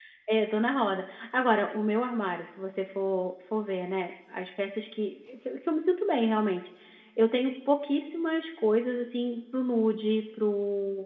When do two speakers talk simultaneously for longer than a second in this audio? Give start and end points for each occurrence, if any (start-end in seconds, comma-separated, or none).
none